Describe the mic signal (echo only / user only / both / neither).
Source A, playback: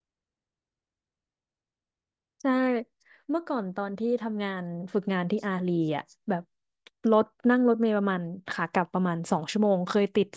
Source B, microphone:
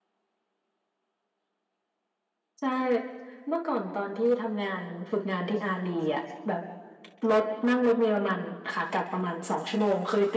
echo only